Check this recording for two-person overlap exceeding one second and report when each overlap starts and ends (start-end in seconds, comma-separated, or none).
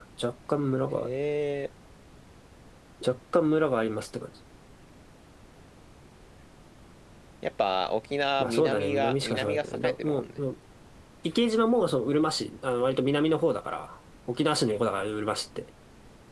8.4-10.4